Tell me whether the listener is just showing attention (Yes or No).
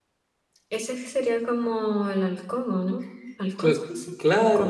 No